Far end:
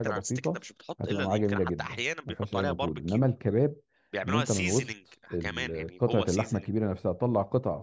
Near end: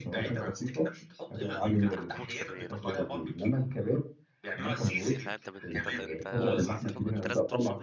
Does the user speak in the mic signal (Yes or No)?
Yes